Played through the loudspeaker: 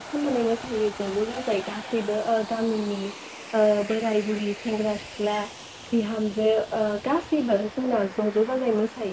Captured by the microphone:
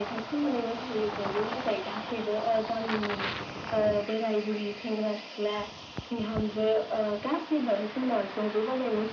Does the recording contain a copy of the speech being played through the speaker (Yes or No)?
Yes